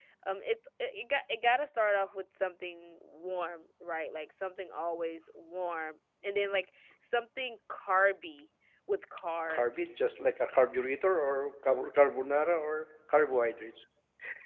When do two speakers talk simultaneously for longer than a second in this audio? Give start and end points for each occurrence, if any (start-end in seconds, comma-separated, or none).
none